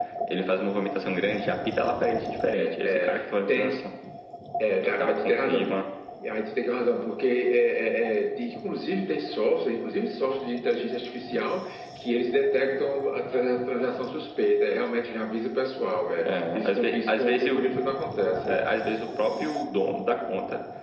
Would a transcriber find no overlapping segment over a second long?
No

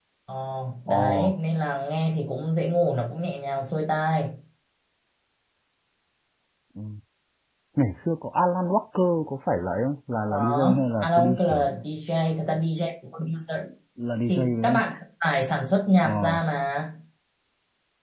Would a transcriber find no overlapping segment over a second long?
No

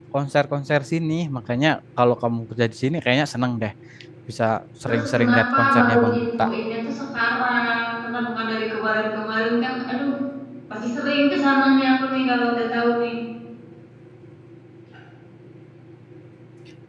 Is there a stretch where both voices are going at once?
Yes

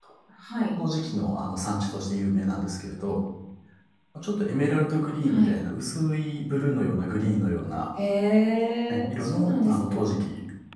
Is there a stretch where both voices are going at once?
Yes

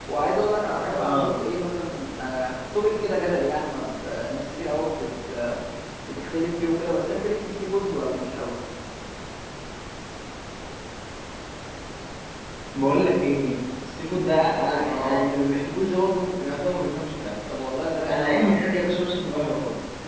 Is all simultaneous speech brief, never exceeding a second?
Yes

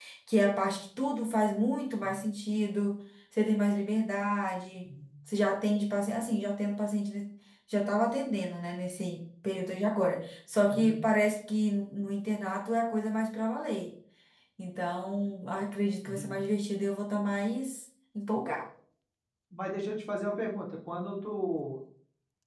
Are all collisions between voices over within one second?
Yes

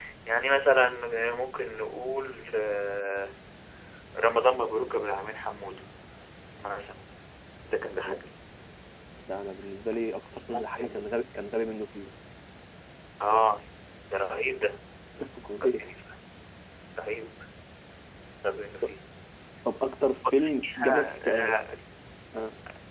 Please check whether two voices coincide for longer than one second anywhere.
Yes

